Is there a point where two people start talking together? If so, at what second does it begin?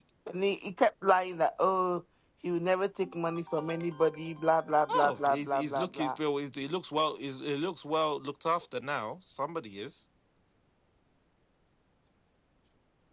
4.9 s

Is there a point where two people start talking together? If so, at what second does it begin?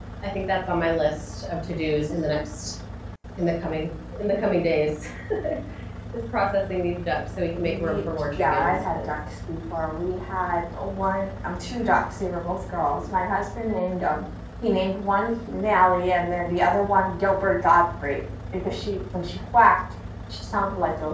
7.6 s

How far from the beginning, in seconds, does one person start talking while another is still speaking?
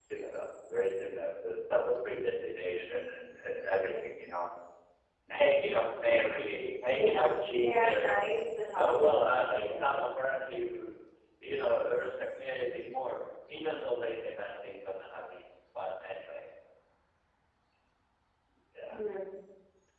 6.9 s

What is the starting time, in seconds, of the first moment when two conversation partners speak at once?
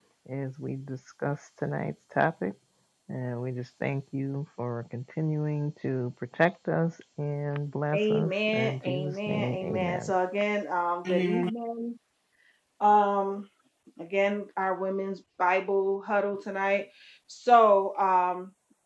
7.9 s

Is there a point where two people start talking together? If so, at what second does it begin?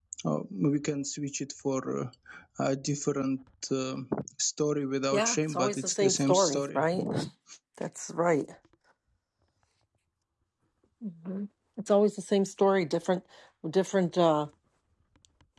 5.1 s

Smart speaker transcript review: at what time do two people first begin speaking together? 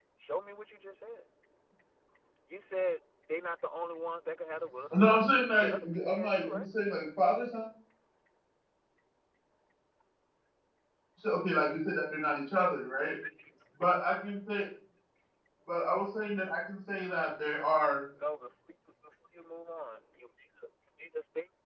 4.9 s

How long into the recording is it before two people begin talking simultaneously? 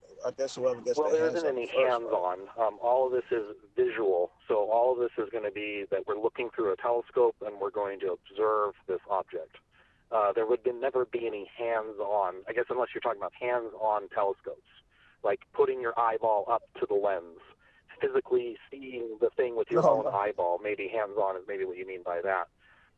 0.9 s

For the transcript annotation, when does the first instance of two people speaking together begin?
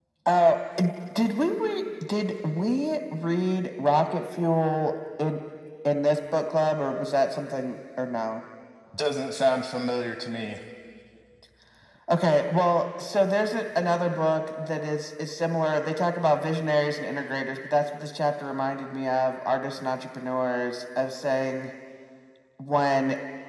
none

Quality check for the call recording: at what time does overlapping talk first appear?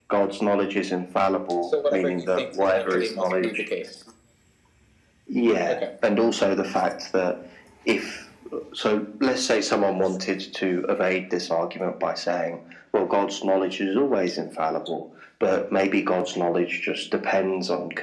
1.9 s

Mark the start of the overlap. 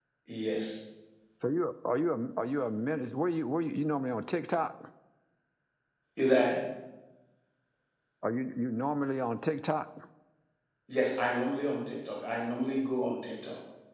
none

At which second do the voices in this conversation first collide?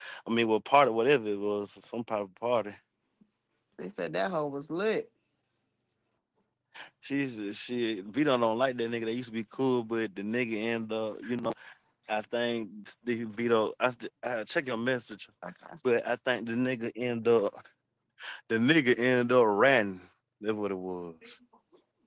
none

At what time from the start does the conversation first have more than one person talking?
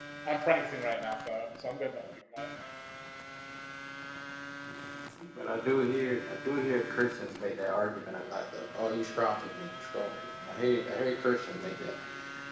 none

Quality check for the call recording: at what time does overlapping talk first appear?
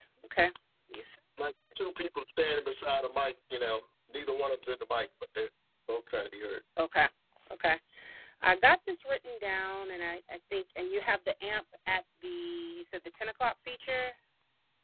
none

